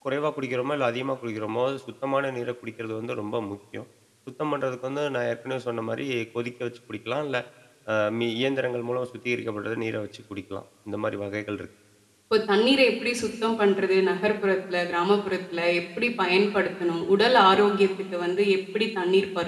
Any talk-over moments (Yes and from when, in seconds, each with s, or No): No